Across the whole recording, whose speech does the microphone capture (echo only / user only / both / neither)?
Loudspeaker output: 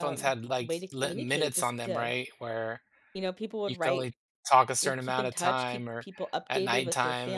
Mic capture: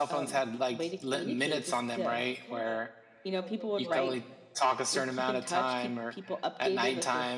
both